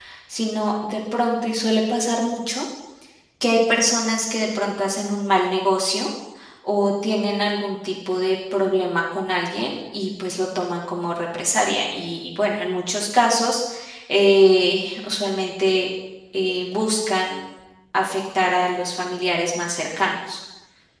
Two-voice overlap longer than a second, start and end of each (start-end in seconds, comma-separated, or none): none